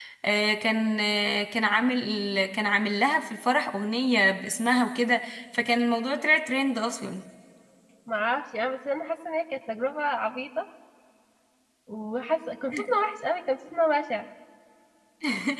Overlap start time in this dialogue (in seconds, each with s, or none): none